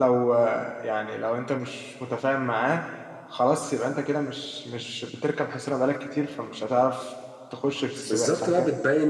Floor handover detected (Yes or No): Yes